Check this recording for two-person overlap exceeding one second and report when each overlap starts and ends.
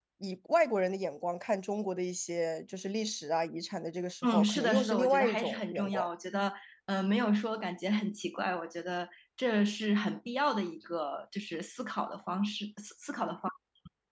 4.2-6.1

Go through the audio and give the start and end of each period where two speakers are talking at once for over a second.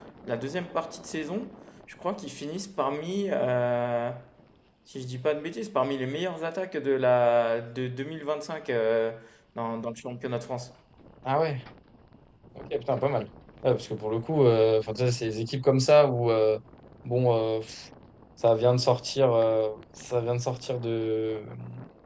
none

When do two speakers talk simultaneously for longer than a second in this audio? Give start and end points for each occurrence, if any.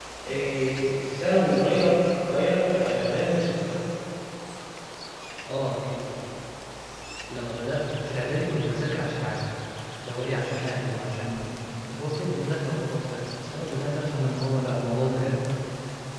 none

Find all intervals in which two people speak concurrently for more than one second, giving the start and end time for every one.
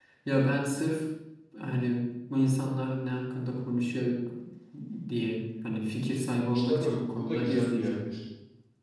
6.5-7.9

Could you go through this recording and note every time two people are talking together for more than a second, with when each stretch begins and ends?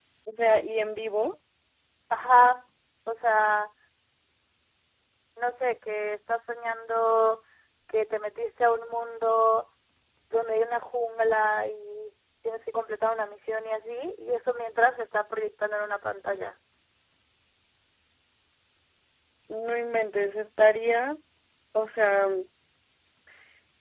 none

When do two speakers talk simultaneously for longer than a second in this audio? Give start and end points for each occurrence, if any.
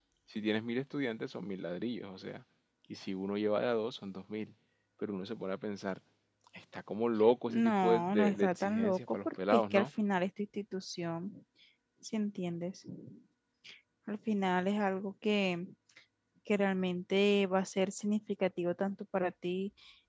7.5-9.9

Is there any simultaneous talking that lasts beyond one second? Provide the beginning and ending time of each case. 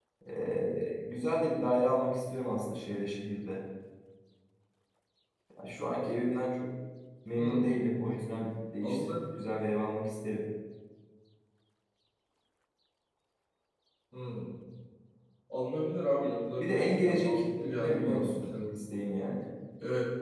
16.6-18.8

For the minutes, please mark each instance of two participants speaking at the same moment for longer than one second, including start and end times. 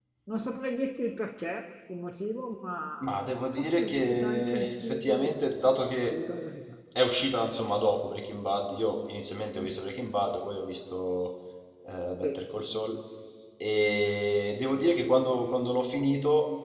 3.5-5.5

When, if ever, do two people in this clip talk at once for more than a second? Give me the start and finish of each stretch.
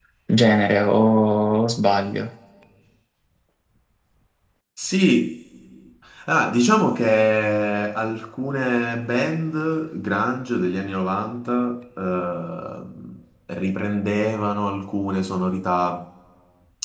none

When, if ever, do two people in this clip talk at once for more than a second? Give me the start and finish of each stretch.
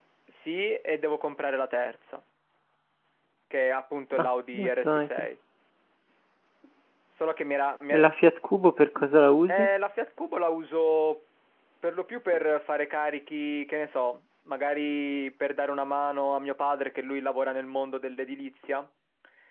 4.2-5.4

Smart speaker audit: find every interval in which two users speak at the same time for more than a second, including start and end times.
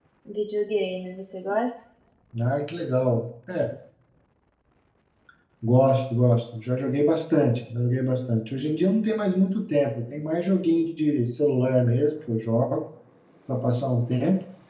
none

